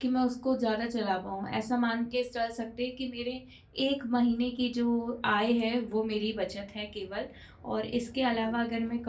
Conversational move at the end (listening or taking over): listening